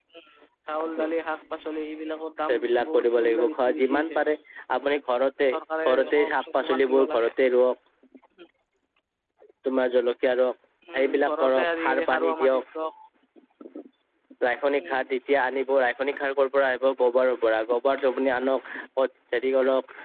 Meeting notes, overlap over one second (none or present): present